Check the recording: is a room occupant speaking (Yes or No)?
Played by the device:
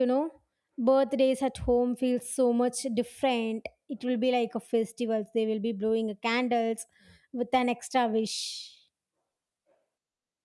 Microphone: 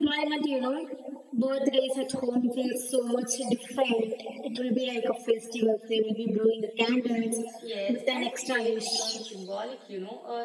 Yes